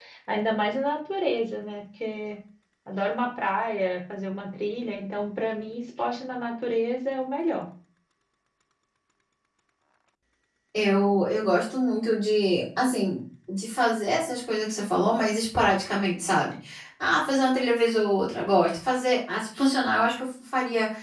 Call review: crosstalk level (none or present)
none